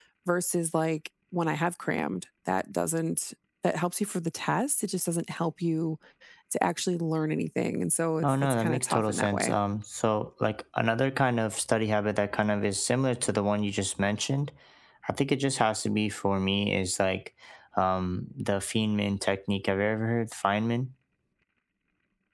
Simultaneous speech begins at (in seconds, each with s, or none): 8.2 s